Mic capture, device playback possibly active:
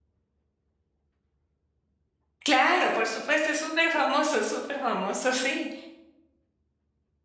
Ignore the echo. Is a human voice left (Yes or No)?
Yes